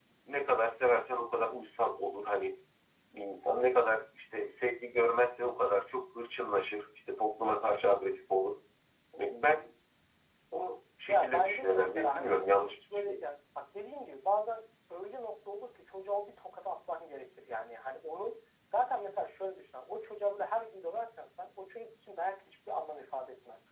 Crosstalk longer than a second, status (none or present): present